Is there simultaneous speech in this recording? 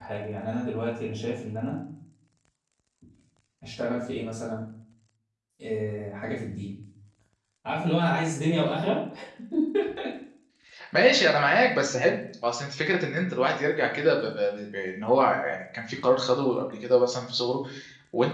No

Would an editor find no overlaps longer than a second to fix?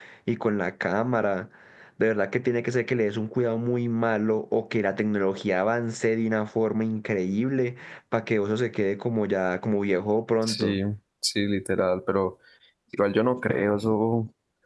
Yes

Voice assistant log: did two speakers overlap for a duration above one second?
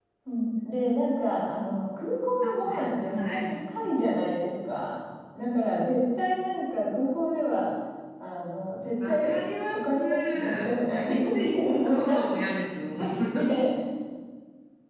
Yes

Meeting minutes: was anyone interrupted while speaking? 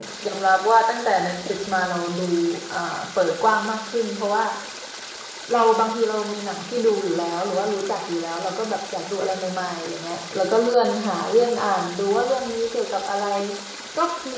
No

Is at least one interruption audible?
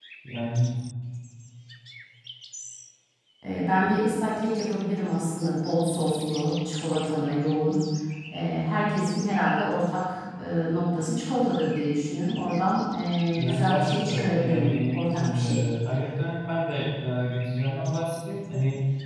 Yes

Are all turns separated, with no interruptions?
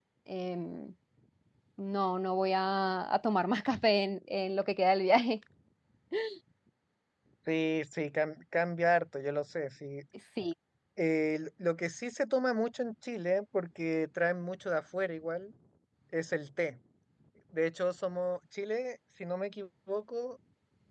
Yes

